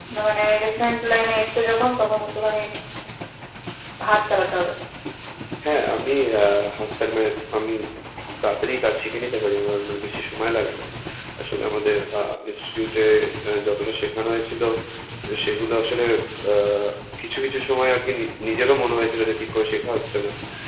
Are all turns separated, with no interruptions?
Yes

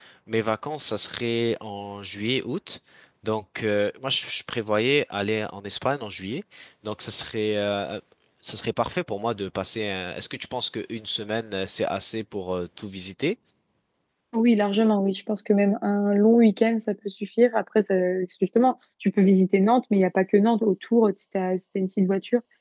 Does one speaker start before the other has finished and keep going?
No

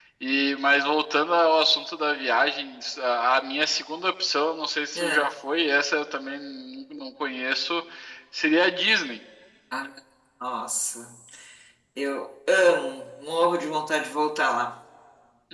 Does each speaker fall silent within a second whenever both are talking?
Yes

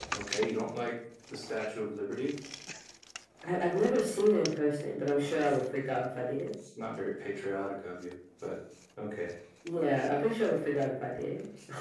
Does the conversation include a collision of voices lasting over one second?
No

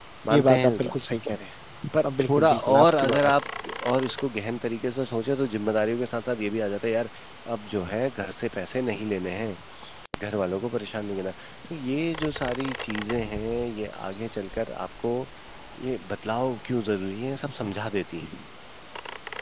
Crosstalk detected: Yes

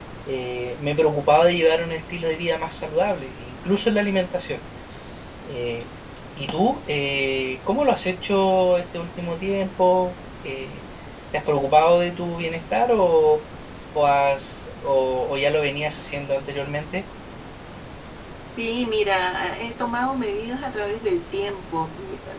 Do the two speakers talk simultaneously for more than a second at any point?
No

